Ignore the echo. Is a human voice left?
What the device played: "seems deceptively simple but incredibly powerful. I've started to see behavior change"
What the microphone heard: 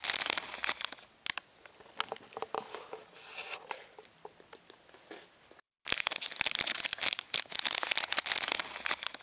No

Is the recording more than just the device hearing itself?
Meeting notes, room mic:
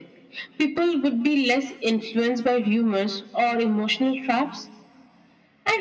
No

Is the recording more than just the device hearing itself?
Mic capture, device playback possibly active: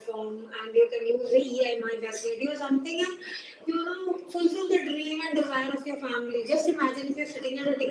No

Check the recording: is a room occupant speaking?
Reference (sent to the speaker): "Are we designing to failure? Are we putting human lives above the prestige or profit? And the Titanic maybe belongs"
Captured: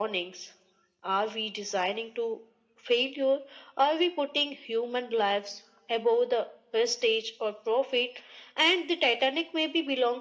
No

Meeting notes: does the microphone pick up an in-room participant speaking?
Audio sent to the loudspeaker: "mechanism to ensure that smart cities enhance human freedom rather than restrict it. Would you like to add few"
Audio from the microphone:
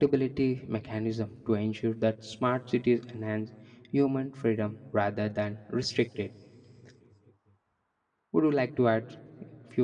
No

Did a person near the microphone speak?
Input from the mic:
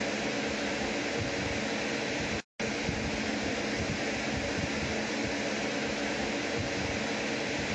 No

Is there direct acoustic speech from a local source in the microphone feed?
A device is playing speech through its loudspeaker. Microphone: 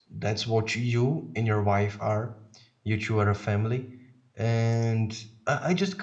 Yes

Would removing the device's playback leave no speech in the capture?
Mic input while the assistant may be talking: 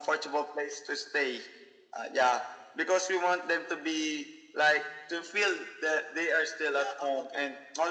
No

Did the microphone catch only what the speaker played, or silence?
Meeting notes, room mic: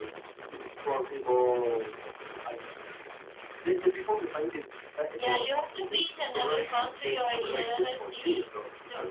Yes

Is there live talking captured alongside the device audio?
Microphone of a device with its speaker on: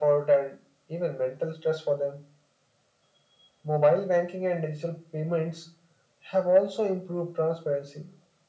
No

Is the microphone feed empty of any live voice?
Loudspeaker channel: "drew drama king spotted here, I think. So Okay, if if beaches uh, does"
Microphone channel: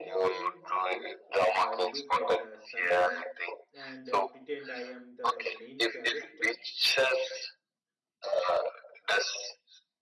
No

